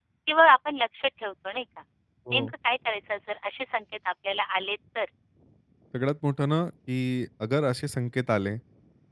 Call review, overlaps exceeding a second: none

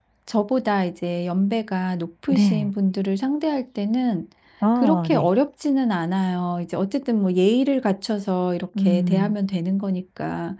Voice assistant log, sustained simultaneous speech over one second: none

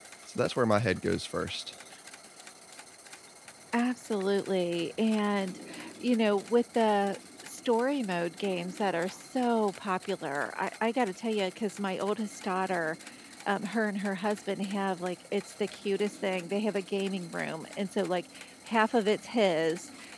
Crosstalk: none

